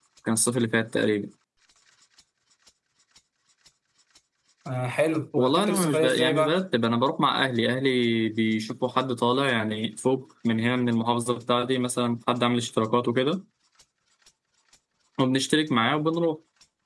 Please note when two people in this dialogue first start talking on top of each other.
5 s

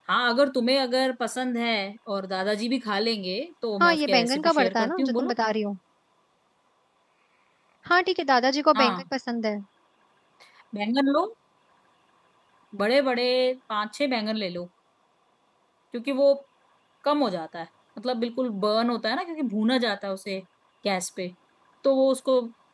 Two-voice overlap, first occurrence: 4 s

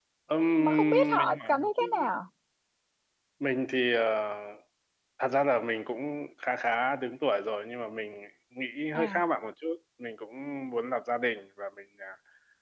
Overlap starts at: 1 s

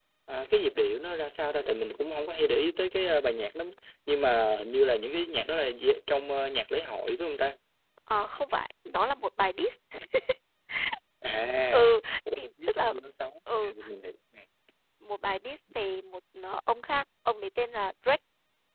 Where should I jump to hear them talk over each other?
12 s

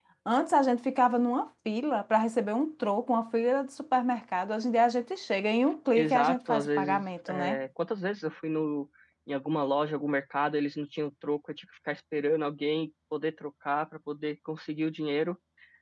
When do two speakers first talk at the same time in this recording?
6 s

